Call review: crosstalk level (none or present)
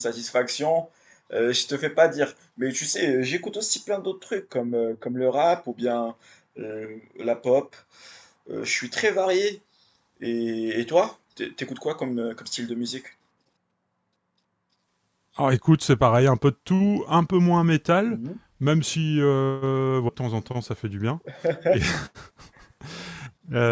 none